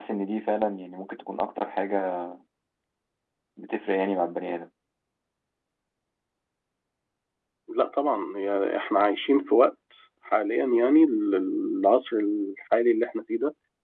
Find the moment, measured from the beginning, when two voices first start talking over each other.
none

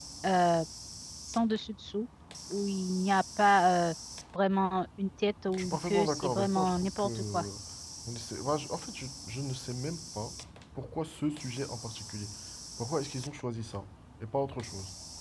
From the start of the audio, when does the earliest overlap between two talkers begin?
5.5 s

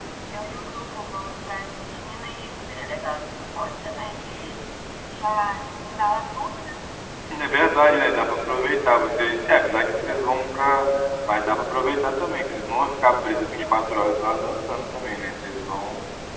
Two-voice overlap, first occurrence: none

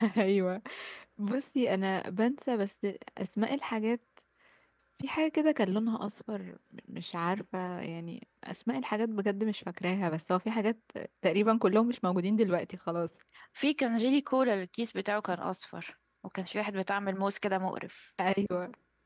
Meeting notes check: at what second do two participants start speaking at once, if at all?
none

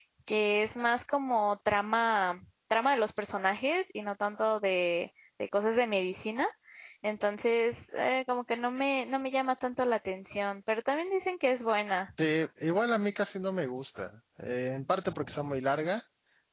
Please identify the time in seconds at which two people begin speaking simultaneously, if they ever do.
none

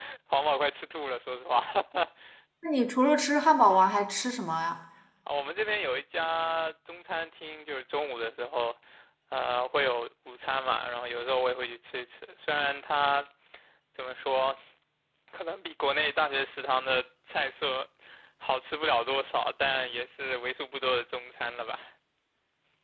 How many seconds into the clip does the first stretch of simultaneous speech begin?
none

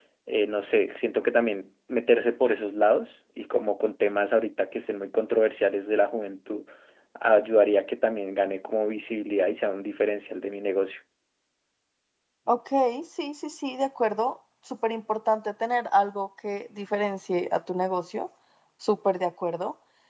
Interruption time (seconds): none

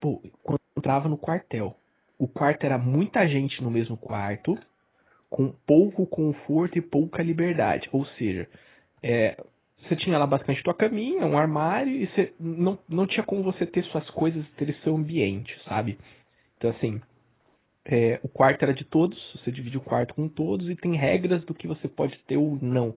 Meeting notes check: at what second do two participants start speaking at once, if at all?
none

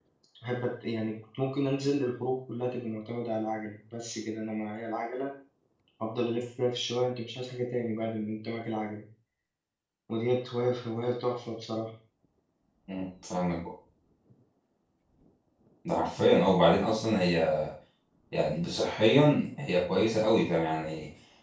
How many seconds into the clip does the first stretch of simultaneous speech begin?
none

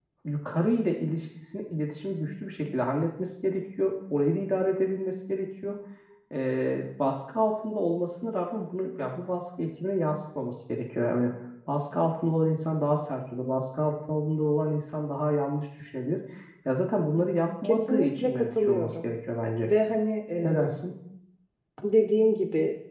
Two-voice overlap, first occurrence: 17.6 s

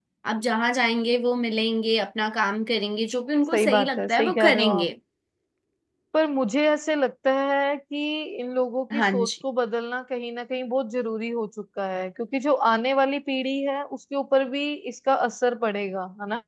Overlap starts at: 3.5 s

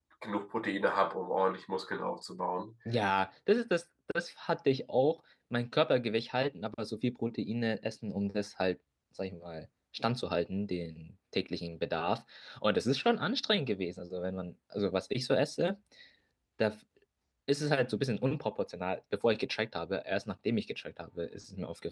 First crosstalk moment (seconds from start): none

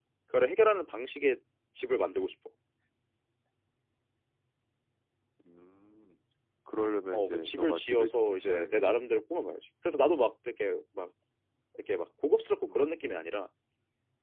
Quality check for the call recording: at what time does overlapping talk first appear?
7.1 s

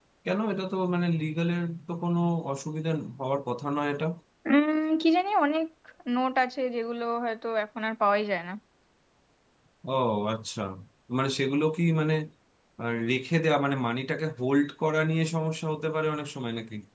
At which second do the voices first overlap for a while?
none

